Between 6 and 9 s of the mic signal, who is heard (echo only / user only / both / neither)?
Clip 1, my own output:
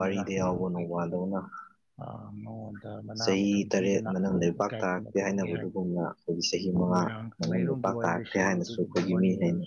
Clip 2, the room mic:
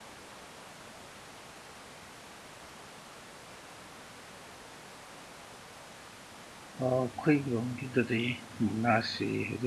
user only